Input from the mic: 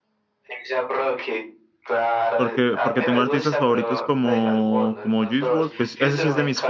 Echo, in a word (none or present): present